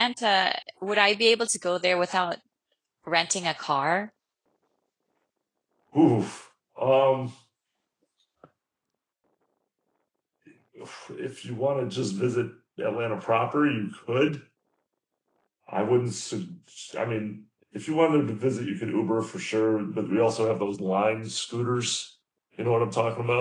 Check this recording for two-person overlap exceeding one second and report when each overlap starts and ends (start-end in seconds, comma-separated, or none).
none